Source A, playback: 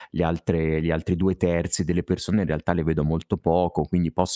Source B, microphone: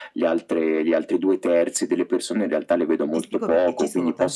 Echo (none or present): present